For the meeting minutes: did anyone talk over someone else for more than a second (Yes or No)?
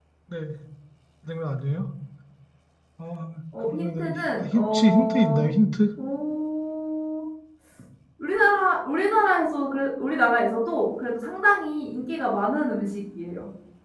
Yes